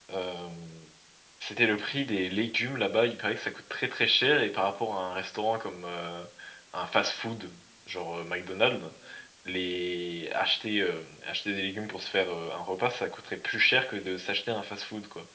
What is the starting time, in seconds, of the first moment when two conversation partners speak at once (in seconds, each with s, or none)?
none